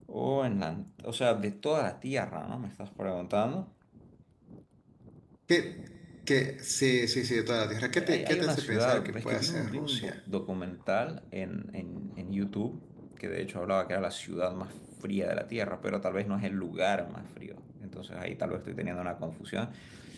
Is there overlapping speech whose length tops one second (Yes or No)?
Yes